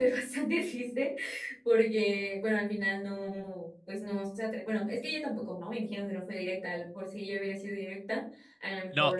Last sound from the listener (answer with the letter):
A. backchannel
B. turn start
B